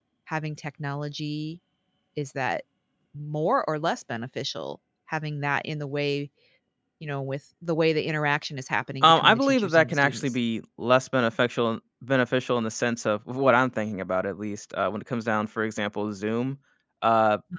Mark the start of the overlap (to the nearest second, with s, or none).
9 s